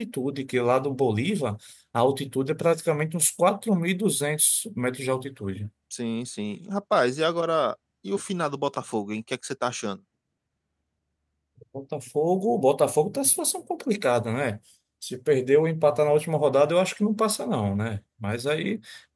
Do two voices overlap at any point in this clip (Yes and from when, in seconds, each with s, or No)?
No